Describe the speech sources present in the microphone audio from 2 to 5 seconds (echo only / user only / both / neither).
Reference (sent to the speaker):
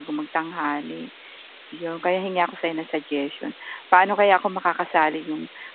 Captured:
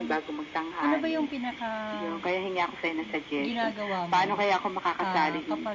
both